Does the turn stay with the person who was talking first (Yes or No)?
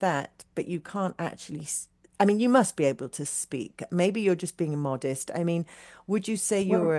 Yes